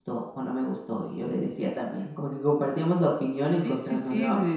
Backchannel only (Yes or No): No